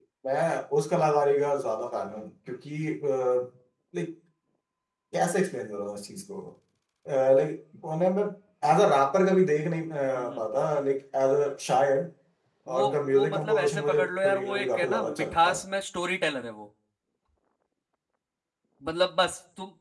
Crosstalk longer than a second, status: present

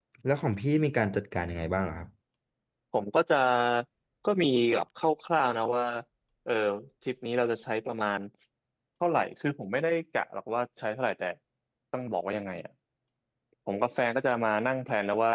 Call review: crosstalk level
none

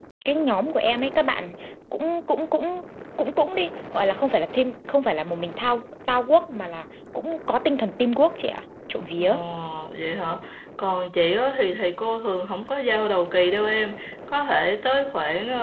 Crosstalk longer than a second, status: none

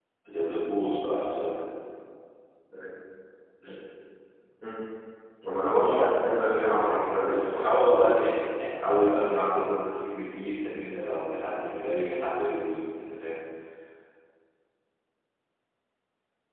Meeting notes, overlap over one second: present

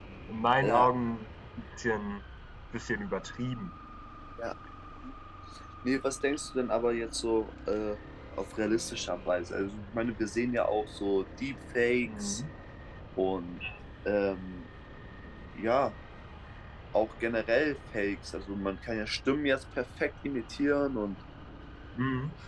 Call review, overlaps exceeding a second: none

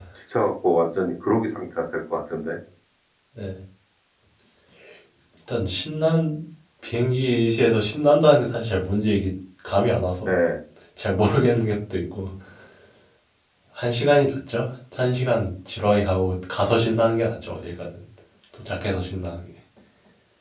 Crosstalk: none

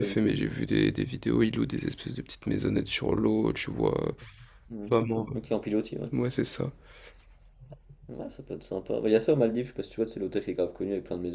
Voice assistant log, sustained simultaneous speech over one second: none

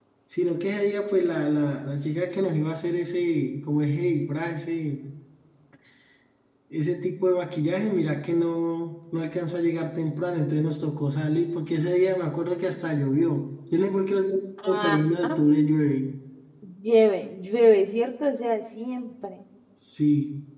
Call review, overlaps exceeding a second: none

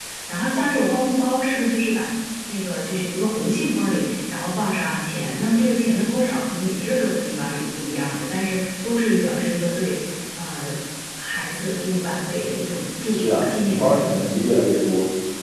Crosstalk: present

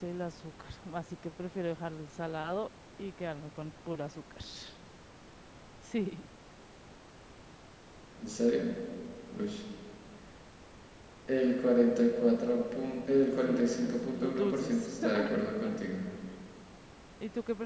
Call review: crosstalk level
present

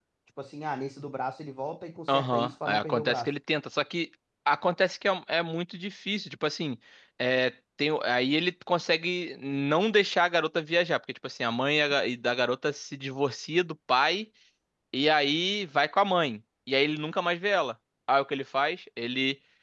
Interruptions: present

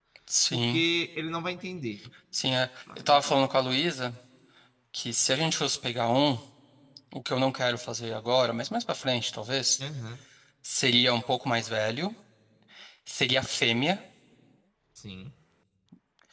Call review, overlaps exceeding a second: none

